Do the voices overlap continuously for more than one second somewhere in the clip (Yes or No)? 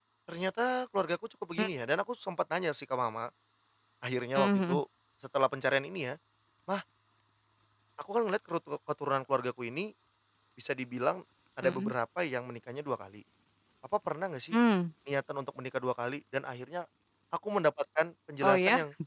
No